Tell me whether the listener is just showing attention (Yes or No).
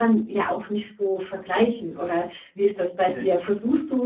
Yes